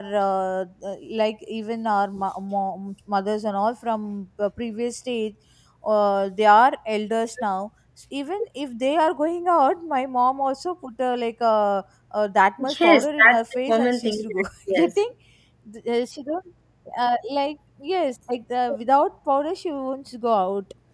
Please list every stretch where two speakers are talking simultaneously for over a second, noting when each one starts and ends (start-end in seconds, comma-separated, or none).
12.6-14.9